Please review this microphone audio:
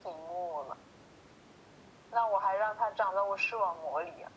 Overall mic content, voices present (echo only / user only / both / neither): echo only